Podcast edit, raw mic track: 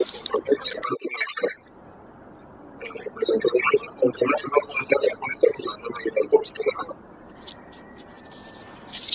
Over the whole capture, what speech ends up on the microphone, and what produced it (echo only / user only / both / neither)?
echo only